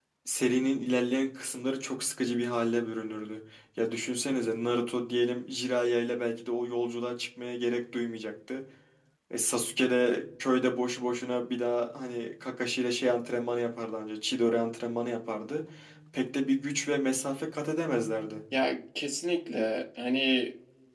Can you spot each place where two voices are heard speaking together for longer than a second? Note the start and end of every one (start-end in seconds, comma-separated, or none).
none